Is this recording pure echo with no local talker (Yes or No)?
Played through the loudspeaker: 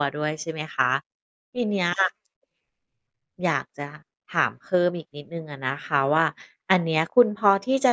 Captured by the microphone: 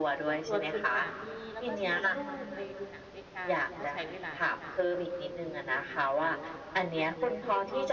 No